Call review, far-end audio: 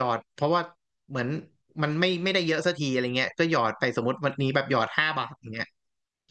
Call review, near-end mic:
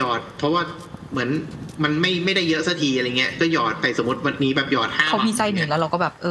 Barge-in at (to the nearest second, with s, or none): 5 s